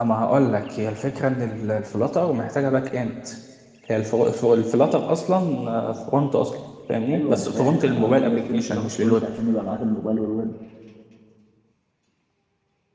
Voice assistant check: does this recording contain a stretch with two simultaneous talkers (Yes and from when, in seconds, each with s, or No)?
Yes, from 7.1 s